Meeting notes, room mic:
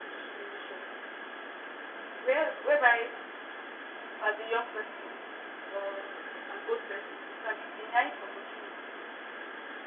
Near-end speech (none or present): none